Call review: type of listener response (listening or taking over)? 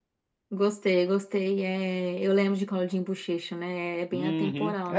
taking over